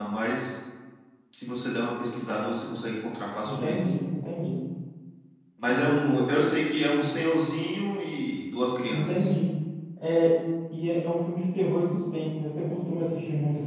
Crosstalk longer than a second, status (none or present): none